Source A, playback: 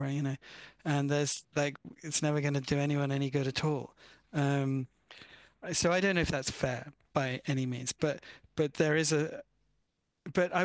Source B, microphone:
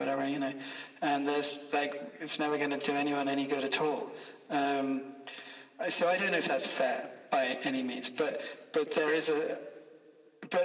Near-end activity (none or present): none